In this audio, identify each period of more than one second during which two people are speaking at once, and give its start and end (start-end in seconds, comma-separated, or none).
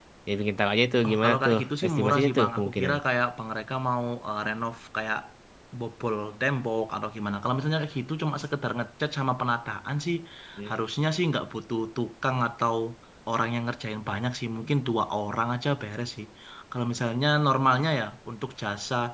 1.0-3.0